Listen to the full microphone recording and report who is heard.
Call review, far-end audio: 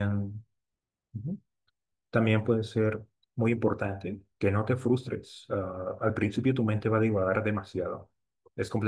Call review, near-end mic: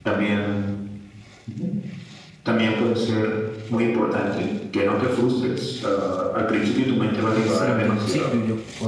both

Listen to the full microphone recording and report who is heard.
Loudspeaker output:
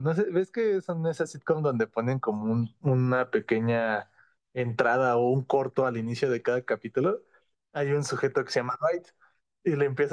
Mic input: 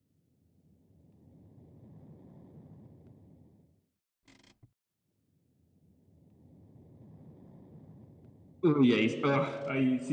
user only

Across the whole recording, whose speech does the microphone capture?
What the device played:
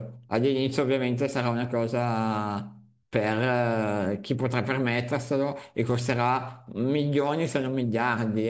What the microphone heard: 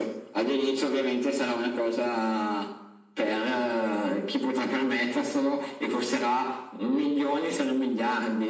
echo only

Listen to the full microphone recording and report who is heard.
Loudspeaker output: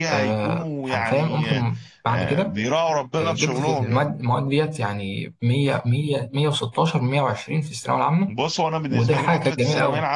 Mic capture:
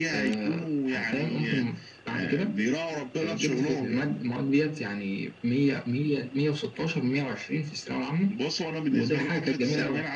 echo only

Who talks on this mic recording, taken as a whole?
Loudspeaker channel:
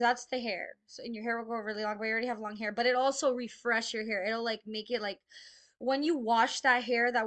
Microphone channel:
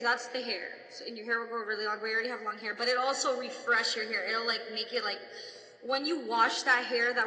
echo only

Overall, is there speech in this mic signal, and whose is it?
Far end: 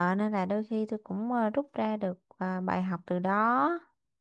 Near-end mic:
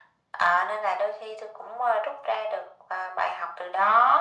echo only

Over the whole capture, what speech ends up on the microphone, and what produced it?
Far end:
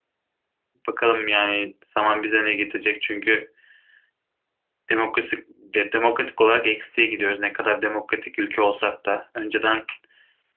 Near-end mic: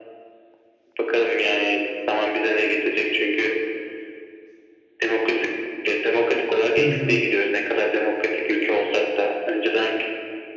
both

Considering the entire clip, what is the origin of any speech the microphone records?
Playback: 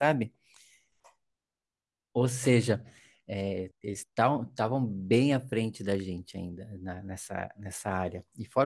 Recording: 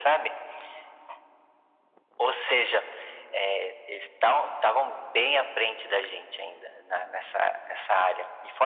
echo only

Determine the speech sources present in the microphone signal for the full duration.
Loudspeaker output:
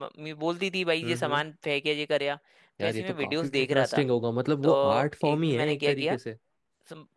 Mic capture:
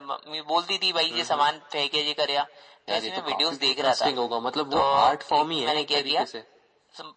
echo only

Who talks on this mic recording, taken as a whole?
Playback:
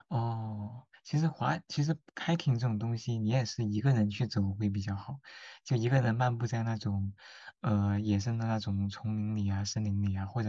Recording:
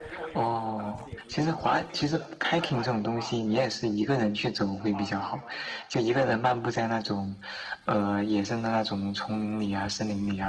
both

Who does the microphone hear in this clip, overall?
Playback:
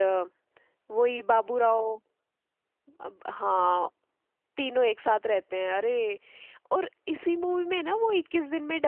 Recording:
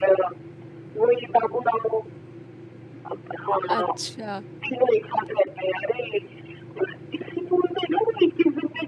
both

